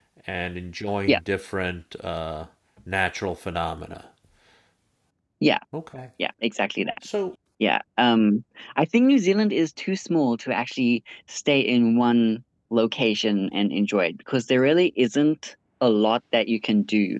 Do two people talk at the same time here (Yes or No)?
No